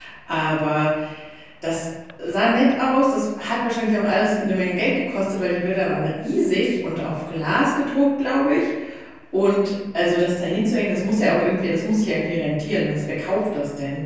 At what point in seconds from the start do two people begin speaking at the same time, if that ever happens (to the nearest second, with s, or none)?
none